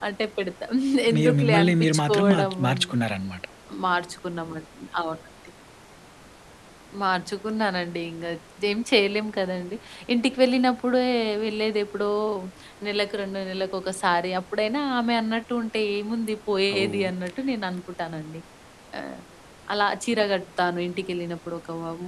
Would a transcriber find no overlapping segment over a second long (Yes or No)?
No